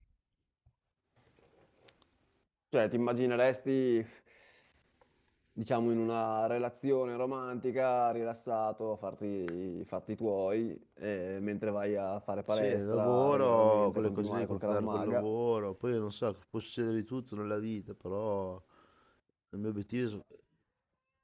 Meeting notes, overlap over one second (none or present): present